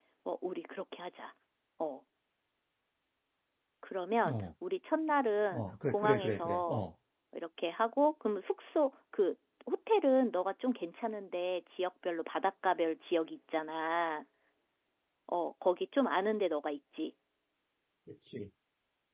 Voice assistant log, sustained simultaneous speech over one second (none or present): present